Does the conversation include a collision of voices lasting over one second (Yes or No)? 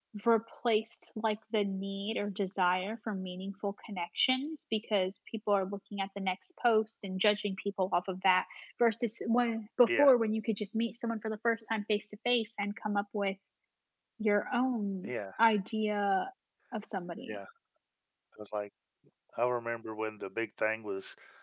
No